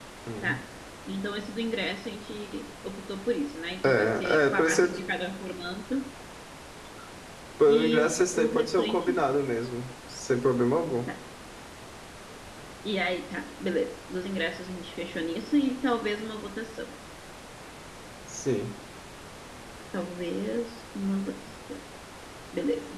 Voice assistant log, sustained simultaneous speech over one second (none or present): present